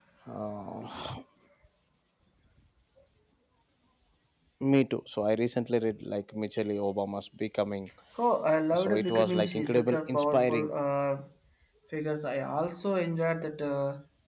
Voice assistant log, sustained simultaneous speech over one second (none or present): present